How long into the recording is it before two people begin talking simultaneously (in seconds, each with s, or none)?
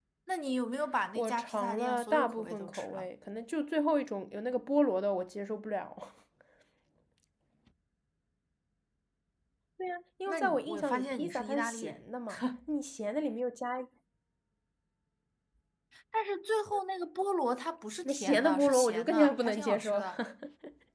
1.1 s